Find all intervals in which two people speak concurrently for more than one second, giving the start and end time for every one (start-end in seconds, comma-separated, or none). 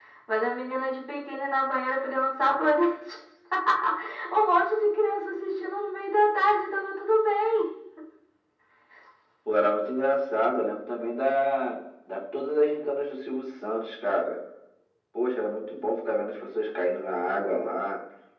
none